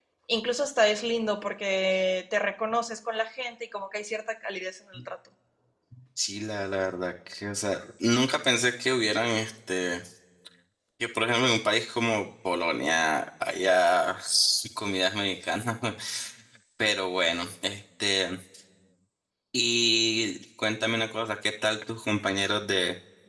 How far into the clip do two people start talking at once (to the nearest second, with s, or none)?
none